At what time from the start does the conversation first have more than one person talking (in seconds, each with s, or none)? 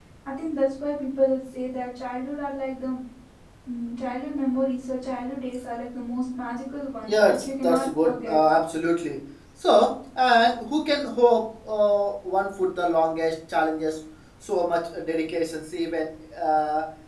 7.0 s